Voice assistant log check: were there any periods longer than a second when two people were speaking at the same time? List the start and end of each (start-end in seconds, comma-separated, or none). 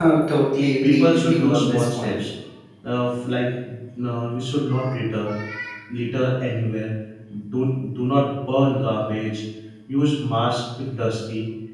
0.8-2.2